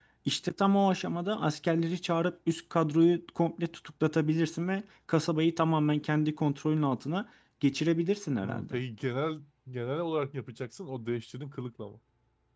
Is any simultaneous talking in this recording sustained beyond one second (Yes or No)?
No